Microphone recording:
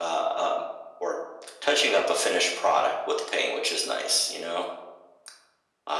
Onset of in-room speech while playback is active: none

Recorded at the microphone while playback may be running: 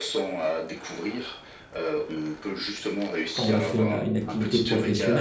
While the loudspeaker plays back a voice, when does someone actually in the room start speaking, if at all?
3.4 s

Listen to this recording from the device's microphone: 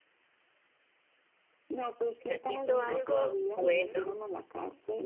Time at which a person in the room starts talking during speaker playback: 2.2 s

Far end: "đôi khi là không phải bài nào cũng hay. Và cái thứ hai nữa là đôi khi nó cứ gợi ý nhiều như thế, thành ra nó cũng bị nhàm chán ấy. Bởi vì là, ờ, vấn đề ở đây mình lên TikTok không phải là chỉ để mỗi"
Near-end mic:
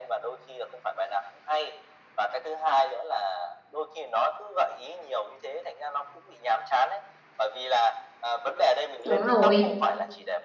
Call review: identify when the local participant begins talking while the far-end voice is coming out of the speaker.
9.1 s

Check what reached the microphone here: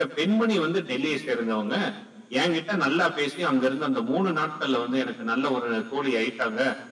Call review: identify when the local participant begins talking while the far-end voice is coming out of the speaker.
none

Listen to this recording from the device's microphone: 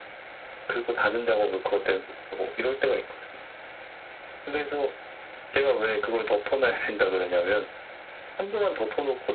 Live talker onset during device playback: none

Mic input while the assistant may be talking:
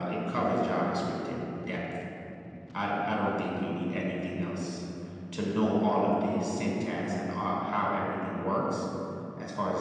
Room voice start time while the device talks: none

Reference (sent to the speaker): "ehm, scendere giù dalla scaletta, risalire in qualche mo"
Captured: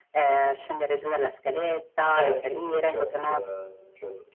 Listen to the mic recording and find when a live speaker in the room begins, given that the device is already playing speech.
2.2 s

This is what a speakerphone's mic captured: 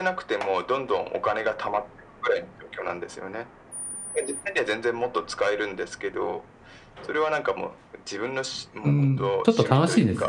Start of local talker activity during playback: 8.8 s

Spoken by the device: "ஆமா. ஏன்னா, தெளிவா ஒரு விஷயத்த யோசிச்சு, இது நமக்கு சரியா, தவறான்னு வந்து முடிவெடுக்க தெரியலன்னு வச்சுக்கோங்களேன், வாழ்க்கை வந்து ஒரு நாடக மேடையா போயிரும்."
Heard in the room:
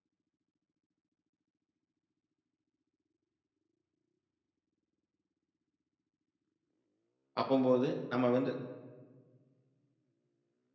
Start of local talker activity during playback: 7.4 s

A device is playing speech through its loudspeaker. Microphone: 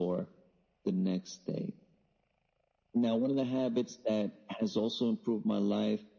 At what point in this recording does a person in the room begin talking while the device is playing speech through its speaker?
none

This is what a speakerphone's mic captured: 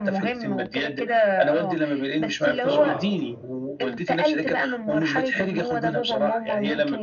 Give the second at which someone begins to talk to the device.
2.6 s

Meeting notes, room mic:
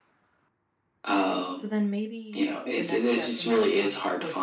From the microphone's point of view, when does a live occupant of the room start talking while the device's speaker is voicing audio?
1.6 s

